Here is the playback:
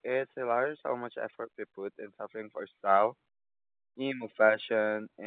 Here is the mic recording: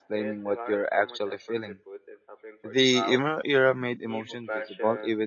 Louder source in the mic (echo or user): user